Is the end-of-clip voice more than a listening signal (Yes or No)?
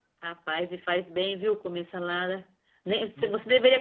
No